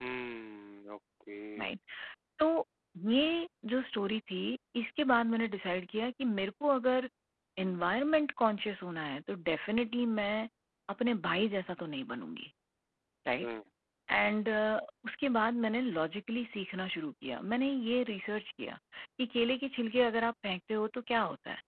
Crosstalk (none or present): none